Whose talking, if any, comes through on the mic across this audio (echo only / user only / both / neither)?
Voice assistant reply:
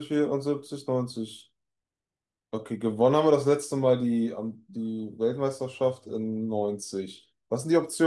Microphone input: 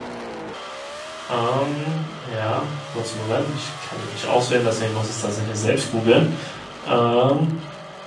user only